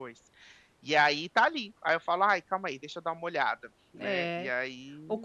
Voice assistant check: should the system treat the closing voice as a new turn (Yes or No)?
Yes